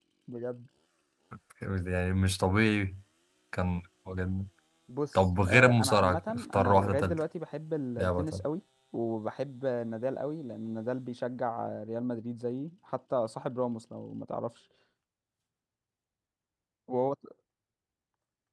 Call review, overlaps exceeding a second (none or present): present